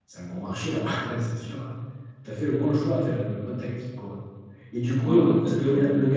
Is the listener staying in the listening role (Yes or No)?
Yes